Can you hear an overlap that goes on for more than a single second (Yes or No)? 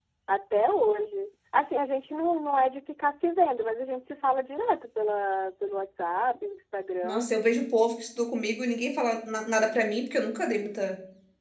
No